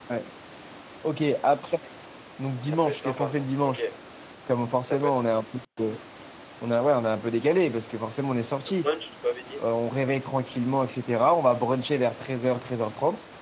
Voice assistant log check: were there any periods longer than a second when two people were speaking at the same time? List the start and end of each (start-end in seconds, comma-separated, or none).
2.6-3.8